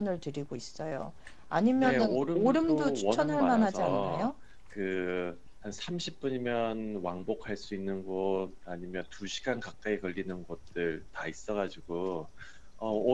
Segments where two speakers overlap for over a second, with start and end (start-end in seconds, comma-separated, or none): 1.8-4.3